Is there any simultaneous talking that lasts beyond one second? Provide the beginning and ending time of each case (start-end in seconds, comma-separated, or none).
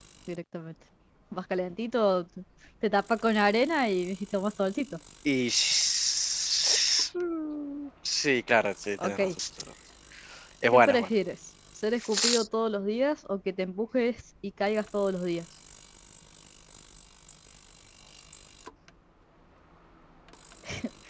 none